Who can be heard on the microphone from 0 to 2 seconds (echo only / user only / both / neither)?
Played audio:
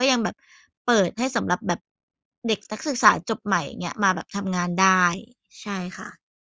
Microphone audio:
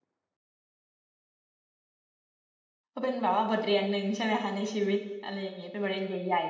neither